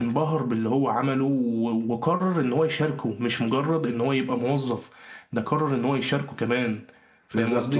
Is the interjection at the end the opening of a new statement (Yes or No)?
Yes